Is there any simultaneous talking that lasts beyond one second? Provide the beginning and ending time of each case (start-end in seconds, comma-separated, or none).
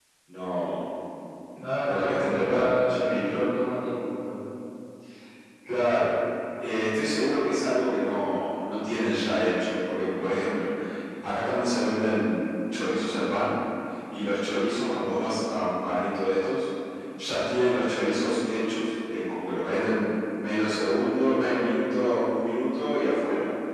1.9-3.4